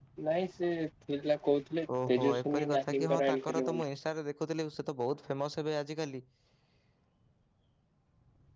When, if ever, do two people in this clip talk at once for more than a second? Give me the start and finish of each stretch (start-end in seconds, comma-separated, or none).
2.1-3.8